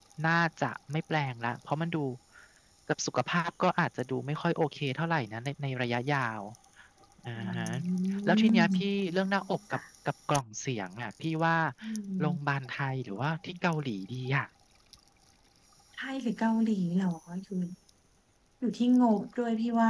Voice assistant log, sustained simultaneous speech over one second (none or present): none